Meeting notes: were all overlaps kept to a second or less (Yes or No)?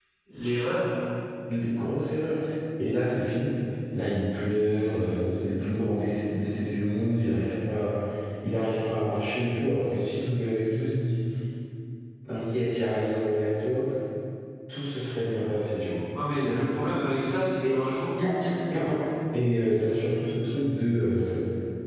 No